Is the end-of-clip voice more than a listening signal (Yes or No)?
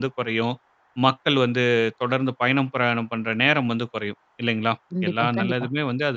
No